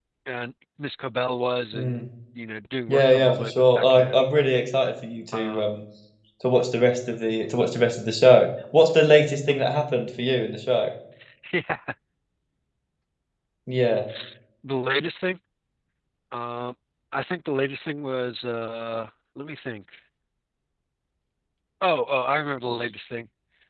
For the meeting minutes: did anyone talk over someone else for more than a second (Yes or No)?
Yes